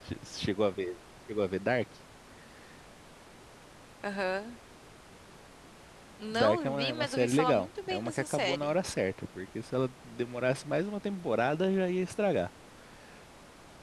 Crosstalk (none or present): present